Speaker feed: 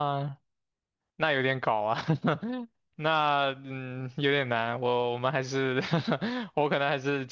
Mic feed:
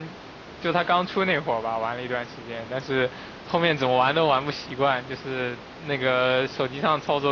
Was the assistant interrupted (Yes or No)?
Yes